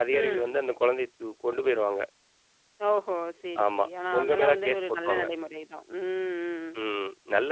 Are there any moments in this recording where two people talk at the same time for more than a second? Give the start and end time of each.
3.6-5.2

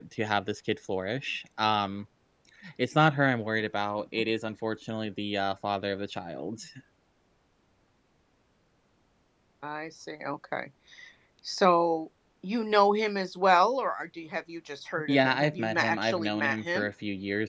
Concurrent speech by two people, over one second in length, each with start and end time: 15.1-16.9

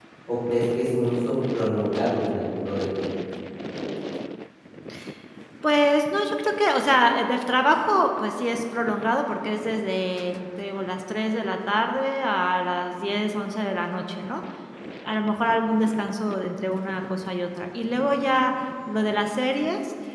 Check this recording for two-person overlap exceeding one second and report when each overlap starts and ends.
none

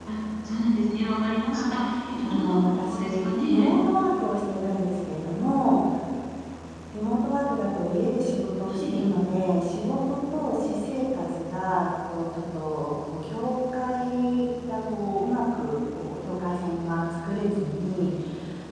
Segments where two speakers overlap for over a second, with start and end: 2.2-3.7

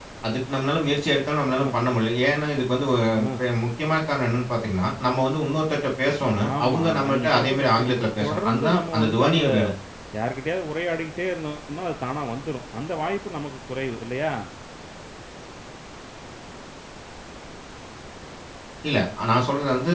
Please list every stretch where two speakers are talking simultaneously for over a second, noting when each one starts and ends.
6.6-9.4

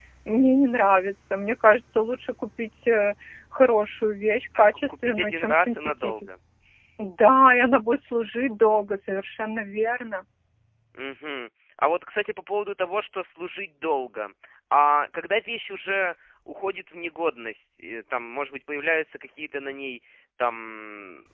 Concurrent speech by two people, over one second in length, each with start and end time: 4.6-6.1

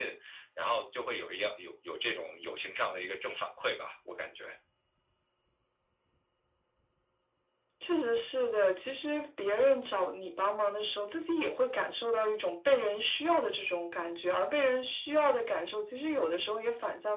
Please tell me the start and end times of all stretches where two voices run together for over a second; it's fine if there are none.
none

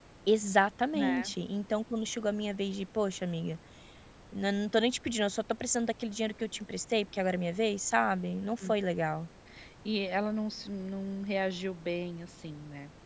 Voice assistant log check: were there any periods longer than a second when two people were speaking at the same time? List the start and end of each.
none

